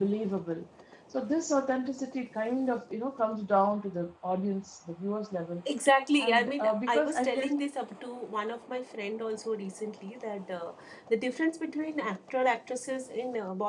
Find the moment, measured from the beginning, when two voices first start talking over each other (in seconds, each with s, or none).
6.2 s